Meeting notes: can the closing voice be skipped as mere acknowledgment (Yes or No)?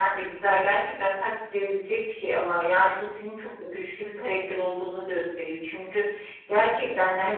Yes